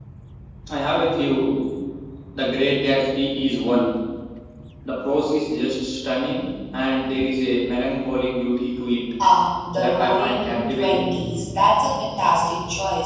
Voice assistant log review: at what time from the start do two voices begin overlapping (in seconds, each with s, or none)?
9.8 s